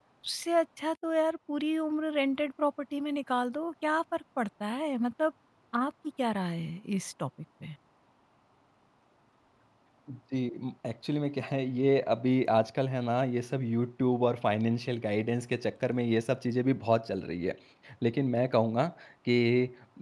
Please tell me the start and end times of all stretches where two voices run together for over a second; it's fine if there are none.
none

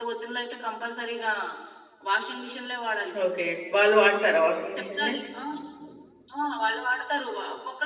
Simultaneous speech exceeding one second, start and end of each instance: none

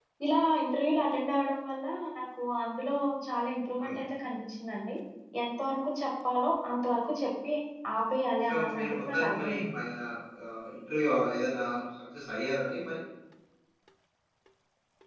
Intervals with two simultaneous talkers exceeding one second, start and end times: 8.5-9.8

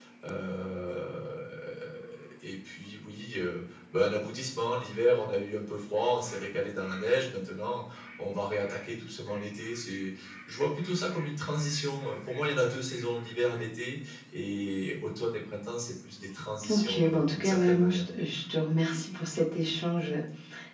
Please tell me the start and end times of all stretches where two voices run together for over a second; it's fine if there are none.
16.7-18.1

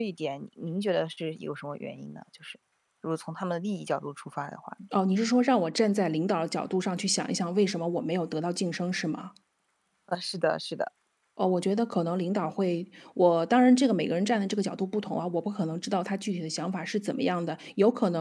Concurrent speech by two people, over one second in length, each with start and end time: none

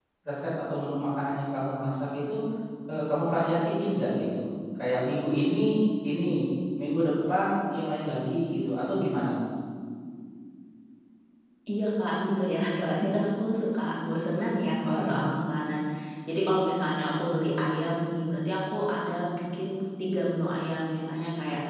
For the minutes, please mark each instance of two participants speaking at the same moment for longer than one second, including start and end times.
none

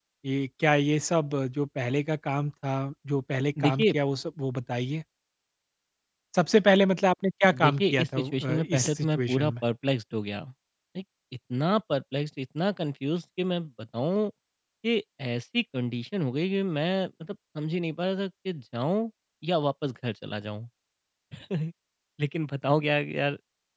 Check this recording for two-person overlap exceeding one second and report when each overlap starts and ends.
7.6-9.5

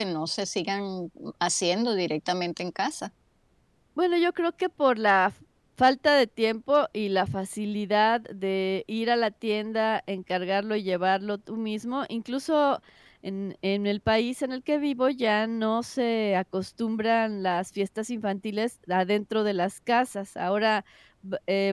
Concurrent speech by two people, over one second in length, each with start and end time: none

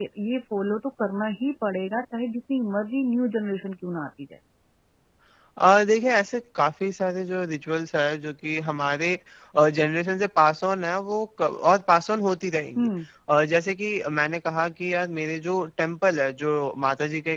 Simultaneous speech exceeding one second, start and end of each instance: none

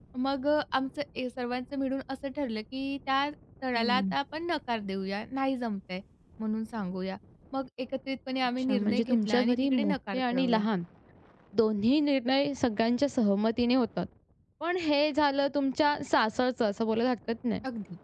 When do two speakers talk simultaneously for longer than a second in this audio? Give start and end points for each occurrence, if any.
8.6-10.7

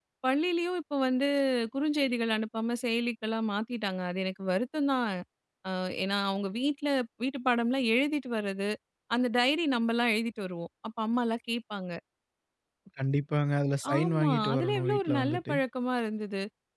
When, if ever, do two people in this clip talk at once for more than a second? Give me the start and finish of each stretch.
14.0-15.6

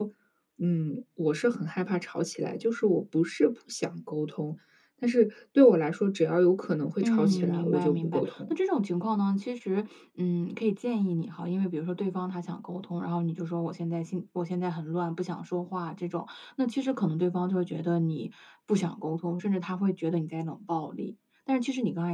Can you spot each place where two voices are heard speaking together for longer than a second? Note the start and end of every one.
7.0-8.5

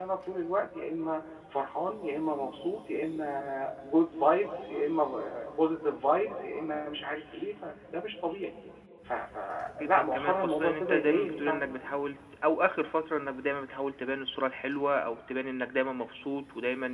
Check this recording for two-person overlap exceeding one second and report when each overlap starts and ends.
9.8-11.6

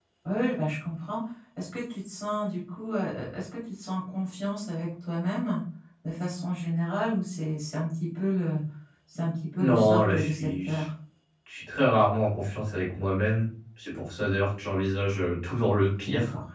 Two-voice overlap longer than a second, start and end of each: 9.6-10.8

